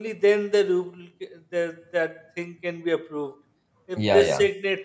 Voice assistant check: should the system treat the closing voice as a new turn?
No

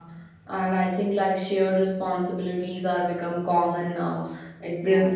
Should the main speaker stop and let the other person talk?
No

